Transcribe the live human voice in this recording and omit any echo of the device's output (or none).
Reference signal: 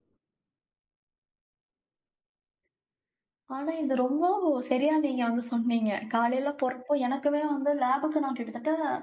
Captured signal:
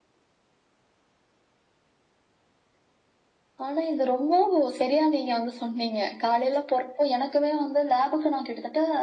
none